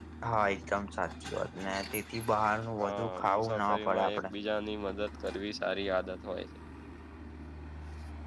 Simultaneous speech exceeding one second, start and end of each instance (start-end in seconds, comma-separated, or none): 2.8-4.2